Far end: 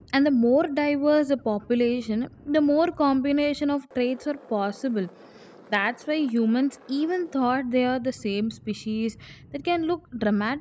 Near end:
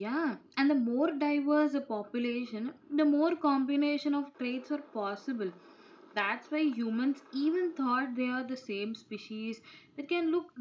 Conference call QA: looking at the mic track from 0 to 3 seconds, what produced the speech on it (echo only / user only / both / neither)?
echo only